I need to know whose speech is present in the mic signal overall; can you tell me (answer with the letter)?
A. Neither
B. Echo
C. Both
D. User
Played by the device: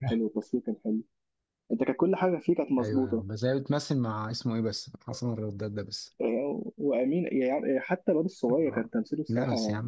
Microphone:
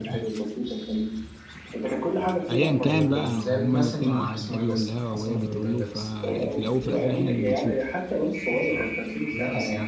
C